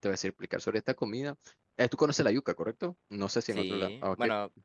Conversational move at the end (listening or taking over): taking over